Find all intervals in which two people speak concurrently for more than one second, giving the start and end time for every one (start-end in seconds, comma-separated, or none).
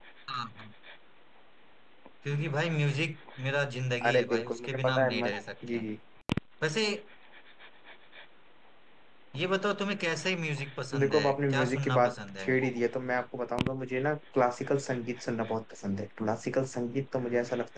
4.0-5.3, 11.0-12.5